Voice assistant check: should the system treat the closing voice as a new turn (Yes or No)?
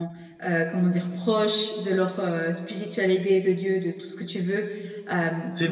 No